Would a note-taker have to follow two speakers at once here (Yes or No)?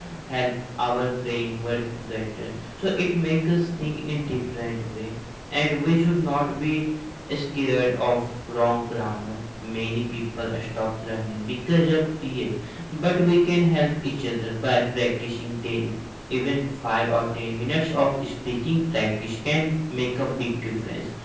No